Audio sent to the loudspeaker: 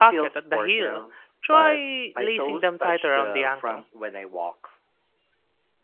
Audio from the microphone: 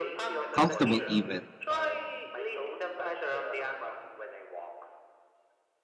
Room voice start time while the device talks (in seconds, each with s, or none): 0.5 s